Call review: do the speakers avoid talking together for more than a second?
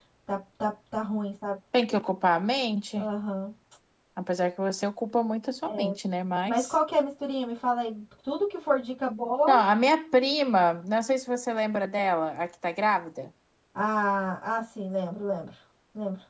Yes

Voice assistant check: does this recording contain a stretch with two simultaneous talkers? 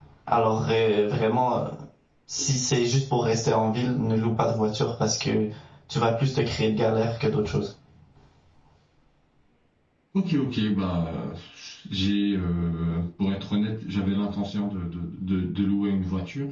No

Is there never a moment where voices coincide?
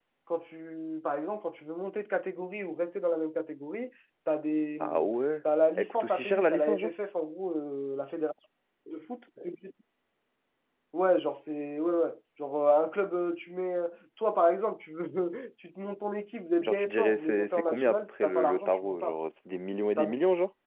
No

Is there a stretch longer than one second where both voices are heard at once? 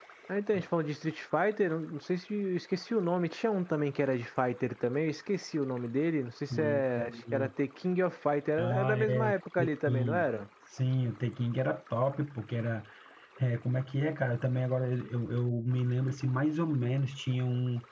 Yes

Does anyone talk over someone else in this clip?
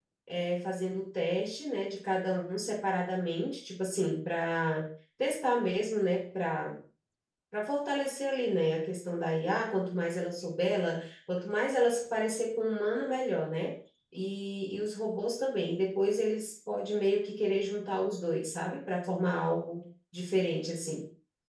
No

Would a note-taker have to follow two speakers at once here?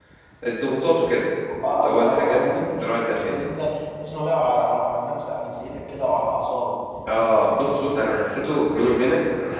Yes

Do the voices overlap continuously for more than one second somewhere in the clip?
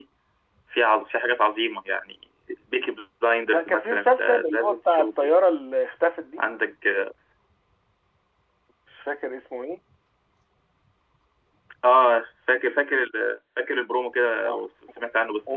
Yes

